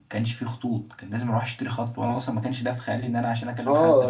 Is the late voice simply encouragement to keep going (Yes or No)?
No